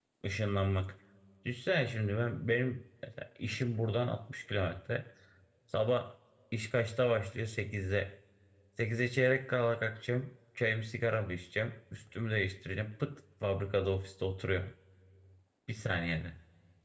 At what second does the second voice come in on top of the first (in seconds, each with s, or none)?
none